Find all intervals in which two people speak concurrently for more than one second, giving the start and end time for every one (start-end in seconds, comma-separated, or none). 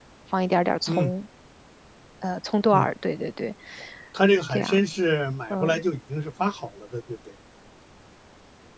none